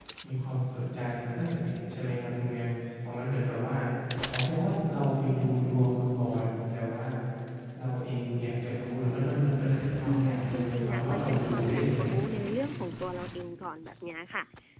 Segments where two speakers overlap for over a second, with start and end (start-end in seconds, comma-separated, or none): 10.1-12.2